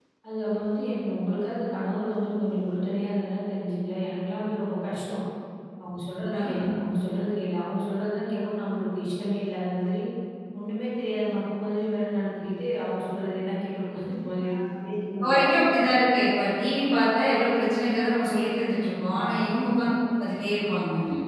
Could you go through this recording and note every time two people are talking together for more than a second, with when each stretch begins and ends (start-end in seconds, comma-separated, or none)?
none